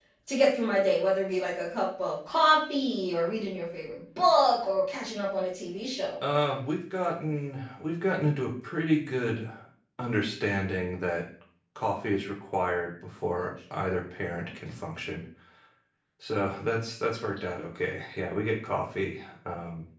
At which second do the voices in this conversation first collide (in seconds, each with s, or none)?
none